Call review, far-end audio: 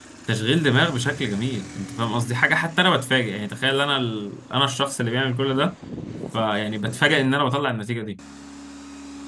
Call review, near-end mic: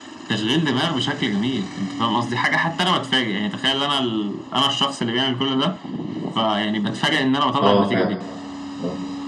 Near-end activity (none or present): present